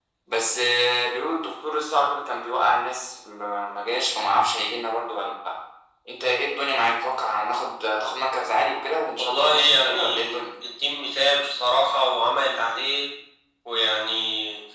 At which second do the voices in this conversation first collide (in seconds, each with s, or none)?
9.2 s